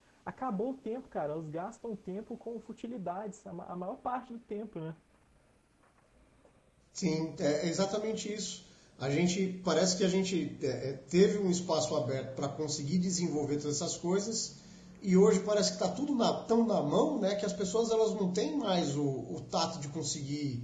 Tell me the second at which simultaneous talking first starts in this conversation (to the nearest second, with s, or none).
none